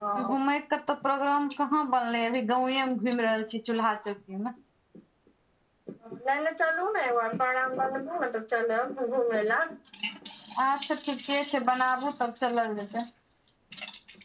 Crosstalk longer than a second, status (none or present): none